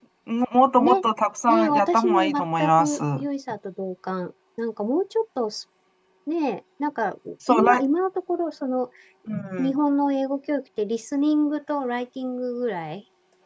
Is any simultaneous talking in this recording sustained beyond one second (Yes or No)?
Yes